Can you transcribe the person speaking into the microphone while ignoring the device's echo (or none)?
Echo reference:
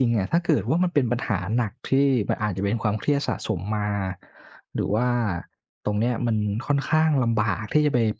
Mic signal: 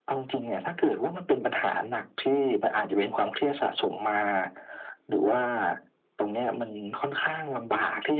none